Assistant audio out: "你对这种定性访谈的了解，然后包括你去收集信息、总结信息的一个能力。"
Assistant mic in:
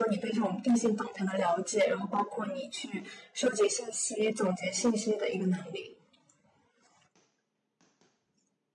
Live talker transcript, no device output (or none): none